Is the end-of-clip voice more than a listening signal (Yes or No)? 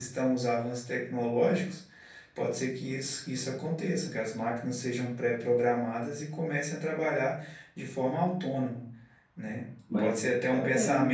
No